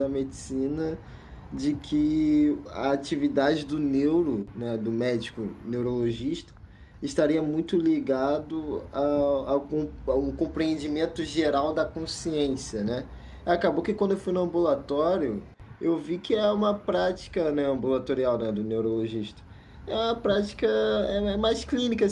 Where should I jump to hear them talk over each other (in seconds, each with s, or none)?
none